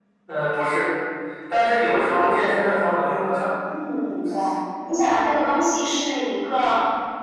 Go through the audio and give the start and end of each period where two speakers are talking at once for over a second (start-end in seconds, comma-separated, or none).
none